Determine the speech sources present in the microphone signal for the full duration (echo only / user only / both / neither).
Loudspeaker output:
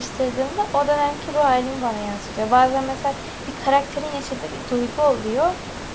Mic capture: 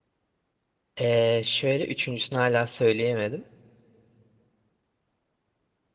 user only